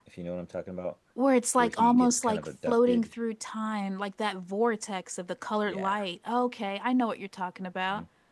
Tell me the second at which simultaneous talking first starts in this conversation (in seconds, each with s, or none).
1.6 s